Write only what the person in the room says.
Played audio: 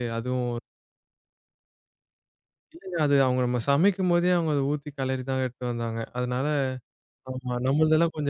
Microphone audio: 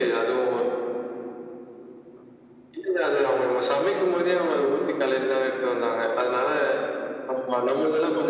none

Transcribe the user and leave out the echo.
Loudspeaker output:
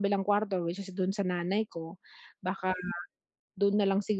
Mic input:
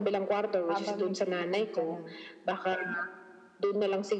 habang nag-iipon ka ng

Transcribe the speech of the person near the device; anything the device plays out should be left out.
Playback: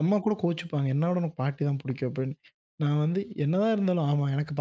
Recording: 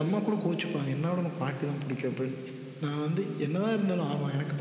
none

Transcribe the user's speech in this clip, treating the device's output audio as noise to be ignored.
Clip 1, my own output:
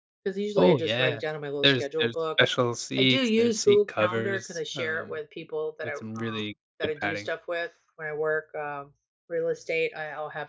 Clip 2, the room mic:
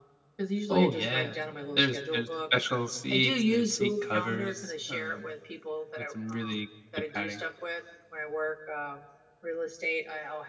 none

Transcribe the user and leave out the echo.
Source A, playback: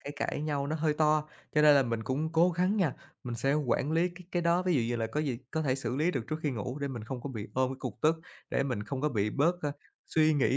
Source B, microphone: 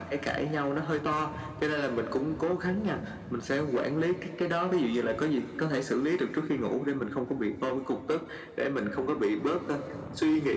none

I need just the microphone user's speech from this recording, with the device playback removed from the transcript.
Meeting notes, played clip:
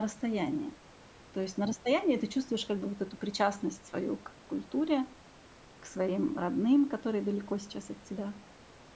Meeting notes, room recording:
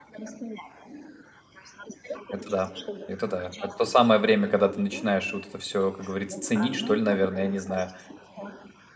Это да, это да. Это то самое время, когда ты начинаешь вот это все, как говорится, ценить, что ли, наверное, я не знаю.

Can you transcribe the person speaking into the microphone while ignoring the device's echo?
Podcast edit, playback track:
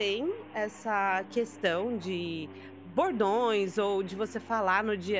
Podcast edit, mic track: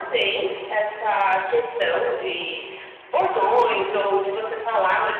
none

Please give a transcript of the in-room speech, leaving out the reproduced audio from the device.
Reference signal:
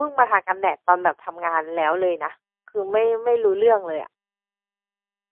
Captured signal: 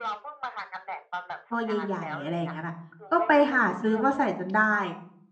ตัวใหญ่ๆอะไรอย่างนั้นน่ะก็ไปหาซื้อมาใส่จนได้

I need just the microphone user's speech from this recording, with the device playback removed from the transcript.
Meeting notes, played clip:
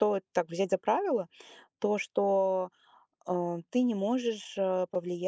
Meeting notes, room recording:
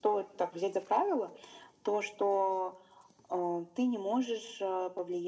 none

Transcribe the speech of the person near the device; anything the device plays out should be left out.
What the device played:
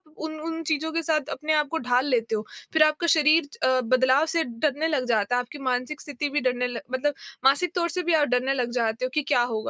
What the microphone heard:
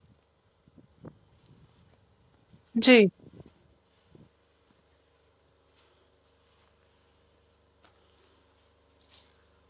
जी,

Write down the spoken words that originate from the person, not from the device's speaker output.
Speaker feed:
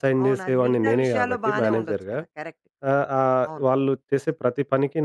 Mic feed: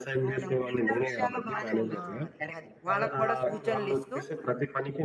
ఆ! అది. అది. వాళ్ళకి కూడా సూచనలిస్తూ

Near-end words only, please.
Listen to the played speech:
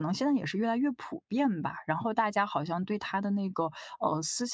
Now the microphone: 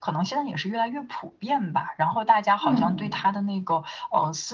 嗯。

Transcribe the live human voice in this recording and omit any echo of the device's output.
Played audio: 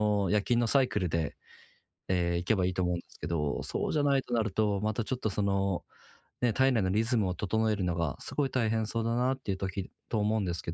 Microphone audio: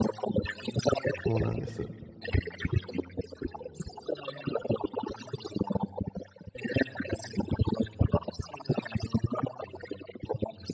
そうなんです。

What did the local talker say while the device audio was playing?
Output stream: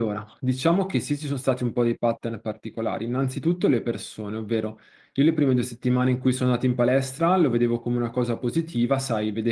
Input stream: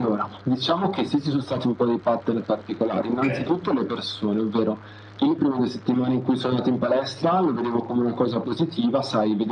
Okay.

